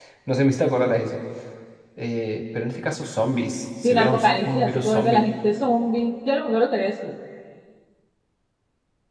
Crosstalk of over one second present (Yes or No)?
Yes